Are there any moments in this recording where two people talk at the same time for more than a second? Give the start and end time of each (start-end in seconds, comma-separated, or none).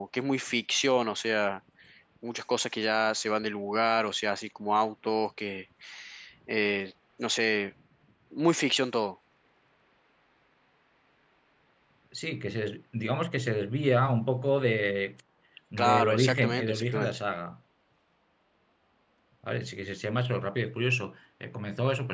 15.8-17.2